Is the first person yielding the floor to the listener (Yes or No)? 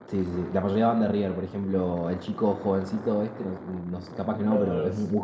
No